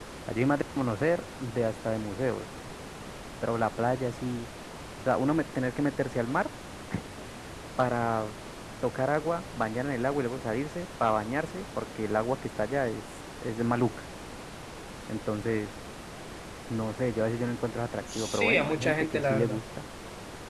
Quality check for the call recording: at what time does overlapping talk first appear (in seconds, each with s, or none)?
18.1 s